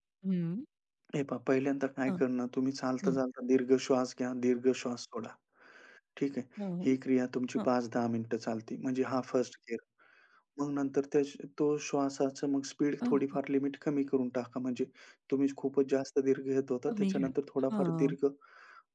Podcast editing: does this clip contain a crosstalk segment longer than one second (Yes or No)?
No